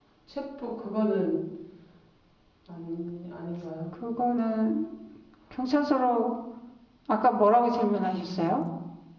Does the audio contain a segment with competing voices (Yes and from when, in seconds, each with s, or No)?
No